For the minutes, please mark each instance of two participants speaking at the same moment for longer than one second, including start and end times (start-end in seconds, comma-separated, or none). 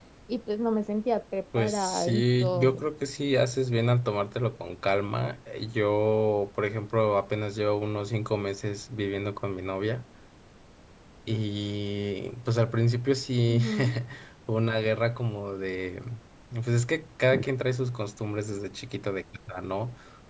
1.6-2.8